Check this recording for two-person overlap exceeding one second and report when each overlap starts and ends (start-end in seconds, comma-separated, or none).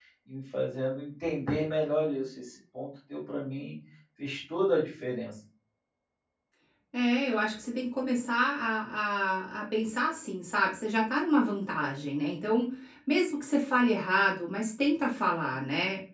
none